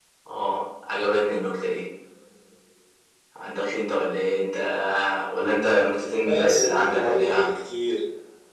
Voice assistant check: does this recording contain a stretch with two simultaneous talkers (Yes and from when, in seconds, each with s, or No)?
Yes, from 6.3 s